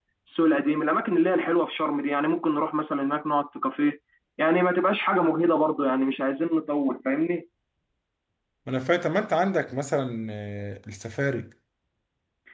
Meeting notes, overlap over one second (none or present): none